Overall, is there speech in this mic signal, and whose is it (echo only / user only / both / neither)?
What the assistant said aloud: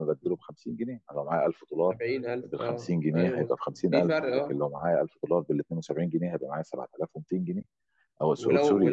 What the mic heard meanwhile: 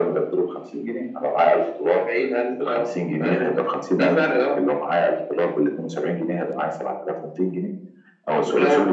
echo only